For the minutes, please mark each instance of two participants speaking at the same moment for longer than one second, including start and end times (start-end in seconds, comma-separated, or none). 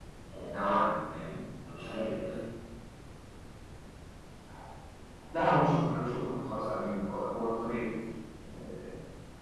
none